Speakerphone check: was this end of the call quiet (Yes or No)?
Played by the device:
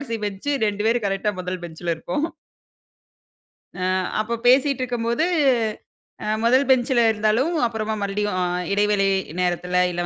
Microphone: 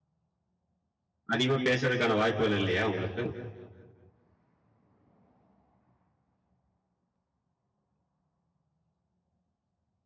No